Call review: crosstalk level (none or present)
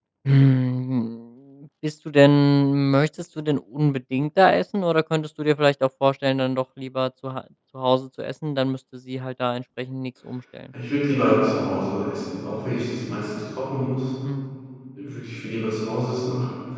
none